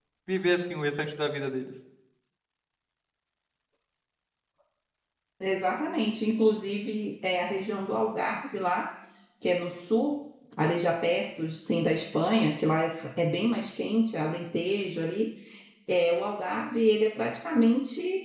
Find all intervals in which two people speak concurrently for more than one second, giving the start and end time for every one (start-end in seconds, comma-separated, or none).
none